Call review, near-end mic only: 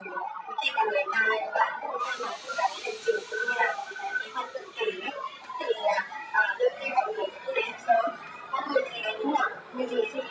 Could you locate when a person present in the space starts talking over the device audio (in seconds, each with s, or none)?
none